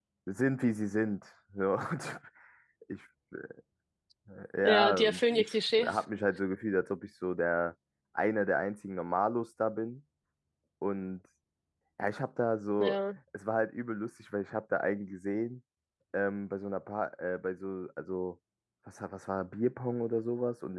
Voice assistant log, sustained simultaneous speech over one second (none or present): present